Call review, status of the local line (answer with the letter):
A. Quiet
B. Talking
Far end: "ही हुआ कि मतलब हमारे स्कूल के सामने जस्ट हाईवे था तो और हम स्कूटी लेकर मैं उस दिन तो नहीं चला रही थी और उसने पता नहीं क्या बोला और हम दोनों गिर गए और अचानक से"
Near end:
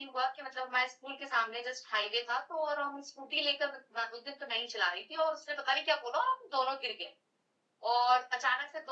A